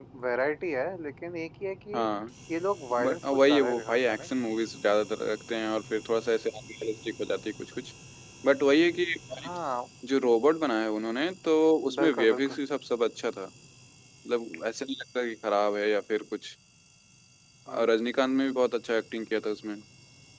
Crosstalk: present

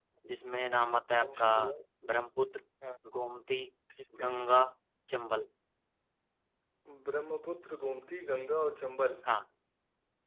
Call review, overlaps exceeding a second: none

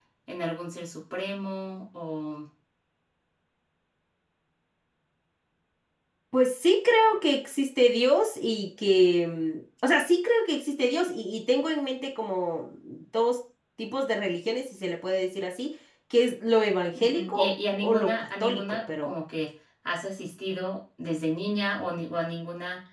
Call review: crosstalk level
present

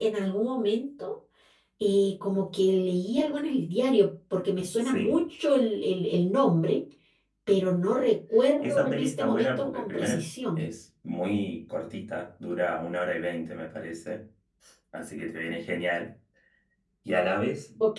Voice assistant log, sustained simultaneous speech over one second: present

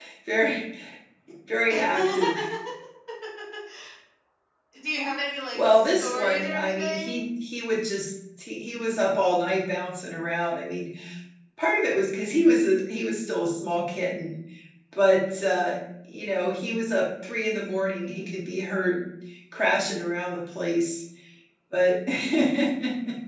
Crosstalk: present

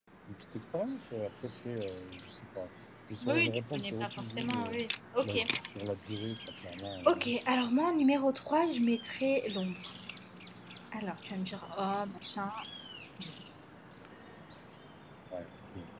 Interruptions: present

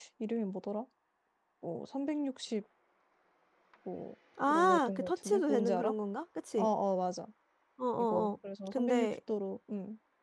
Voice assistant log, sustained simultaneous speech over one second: present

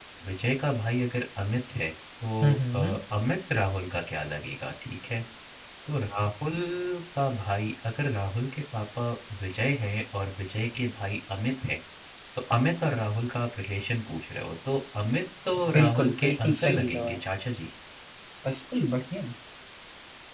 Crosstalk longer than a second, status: present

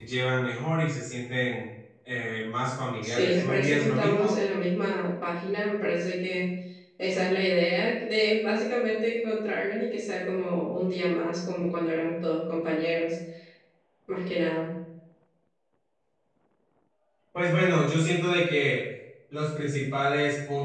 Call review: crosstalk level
present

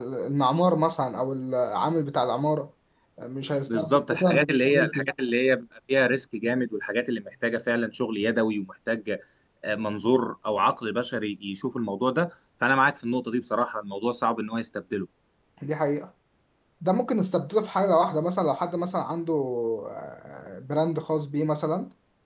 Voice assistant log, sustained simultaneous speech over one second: present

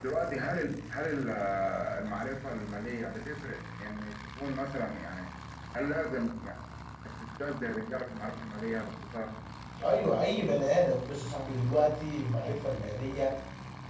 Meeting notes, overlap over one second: none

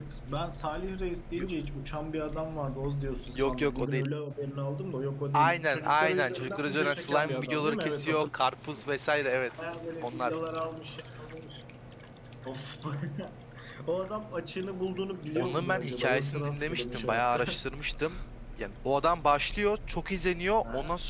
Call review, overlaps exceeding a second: present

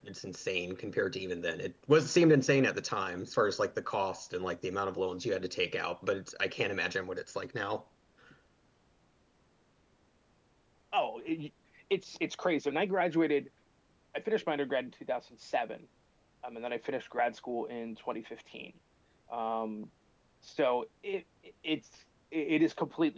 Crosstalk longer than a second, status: none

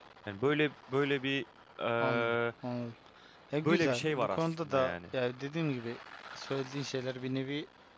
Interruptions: present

